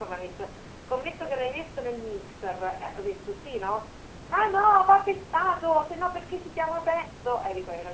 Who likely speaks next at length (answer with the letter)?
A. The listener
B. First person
B